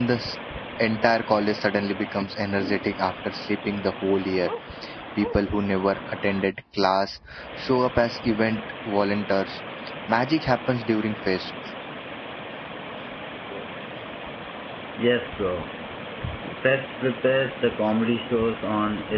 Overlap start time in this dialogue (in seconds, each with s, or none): none